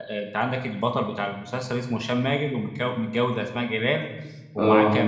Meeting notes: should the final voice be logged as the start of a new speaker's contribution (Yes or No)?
No